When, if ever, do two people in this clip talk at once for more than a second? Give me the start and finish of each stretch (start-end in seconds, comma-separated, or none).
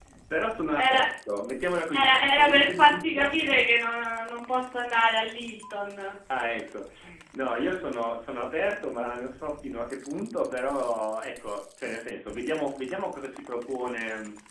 1.9-3.3